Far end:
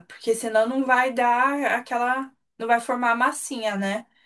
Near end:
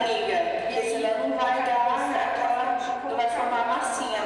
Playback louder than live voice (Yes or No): Yes